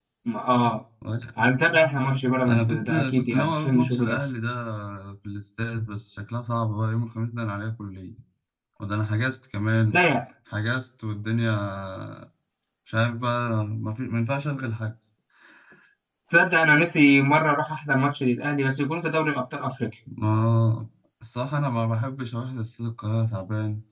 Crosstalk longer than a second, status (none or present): present